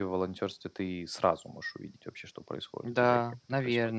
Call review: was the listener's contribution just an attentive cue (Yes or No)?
No